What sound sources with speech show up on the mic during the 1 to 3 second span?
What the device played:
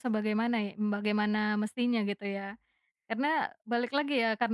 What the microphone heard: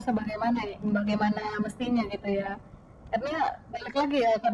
echo only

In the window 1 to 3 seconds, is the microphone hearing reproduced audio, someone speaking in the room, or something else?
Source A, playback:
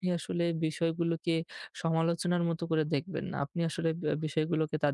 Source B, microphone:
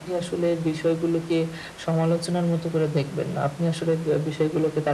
echo only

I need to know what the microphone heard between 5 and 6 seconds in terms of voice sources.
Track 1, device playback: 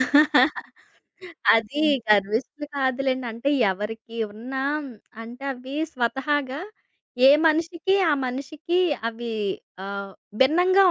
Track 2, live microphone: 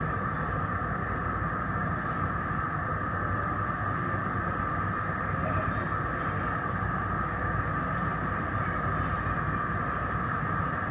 neither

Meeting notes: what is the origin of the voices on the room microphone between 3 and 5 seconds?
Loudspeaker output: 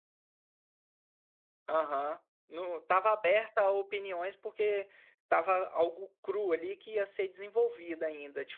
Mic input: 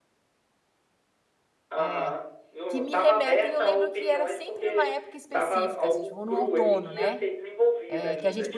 both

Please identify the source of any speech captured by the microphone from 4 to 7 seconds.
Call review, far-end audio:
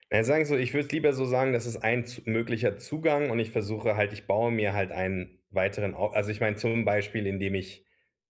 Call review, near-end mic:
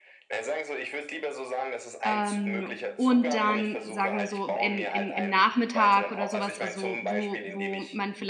both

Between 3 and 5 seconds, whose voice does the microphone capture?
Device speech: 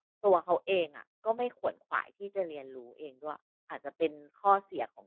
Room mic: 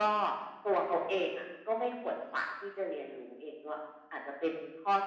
echo only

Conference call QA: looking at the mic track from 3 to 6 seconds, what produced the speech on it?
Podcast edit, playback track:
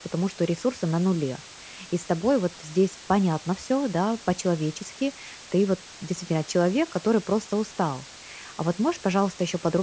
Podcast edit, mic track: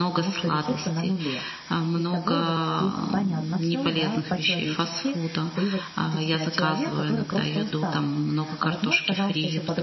both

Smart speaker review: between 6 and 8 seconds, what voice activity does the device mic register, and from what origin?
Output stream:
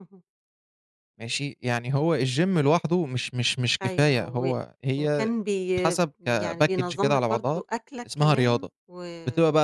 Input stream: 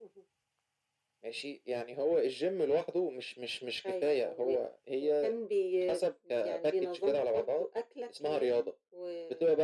echo only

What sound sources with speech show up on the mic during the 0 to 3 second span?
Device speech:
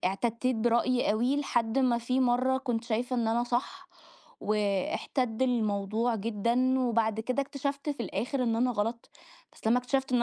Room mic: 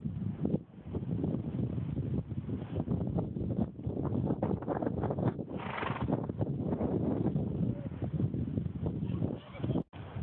neither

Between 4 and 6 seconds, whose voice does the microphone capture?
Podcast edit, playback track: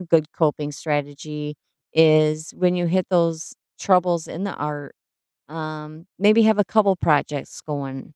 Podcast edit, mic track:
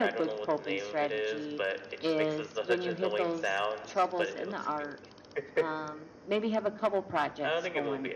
both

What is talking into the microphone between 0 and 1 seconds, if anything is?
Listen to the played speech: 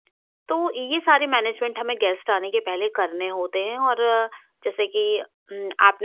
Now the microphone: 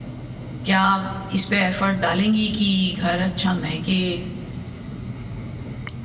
user only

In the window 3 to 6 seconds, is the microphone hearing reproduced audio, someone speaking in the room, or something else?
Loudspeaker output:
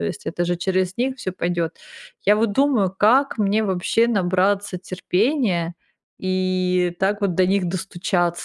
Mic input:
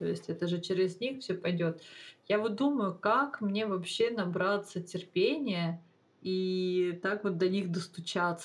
echo only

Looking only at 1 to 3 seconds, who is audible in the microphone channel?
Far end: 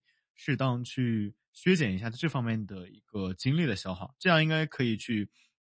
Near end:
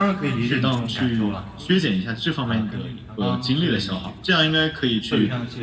both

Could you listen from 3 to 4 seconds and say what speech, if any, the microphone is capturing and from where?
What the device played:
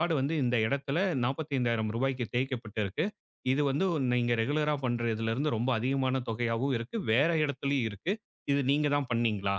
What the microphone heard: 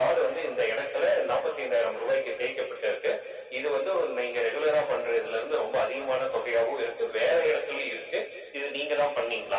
echo only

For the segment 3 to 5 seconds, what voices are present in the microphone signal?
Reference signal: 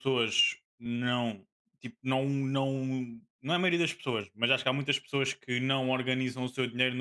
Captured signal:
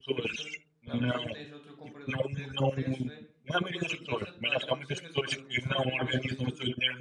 both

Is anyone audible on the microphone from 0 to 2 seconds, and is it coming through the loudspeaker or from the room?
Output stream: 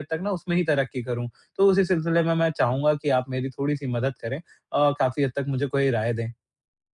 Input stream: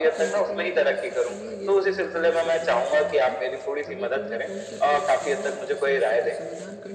both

